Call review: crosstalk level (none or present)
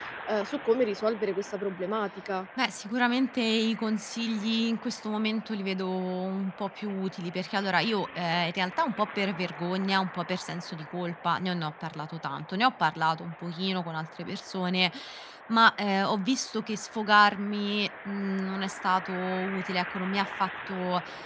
none